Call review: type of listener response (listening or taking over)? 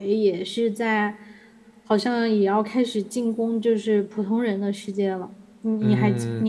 taking over